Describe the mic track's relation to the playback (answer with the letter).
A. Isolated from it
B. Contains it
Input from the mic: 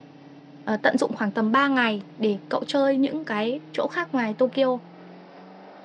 A